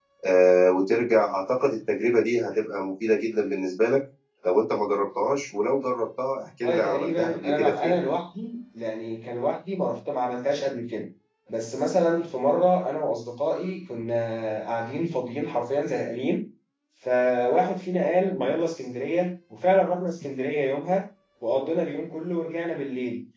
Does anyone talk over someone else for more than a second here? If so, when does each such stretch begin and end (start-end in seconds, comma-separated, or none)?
6.6-8.0